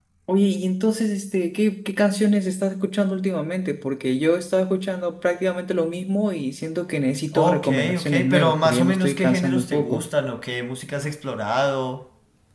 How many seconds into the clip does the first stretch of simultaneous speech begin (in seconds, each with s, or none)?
7.3 s